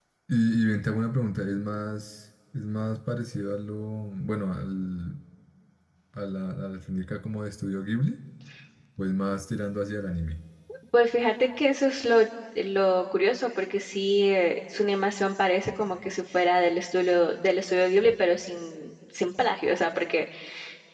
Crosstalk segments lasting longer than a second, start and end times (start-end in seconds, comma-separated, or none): none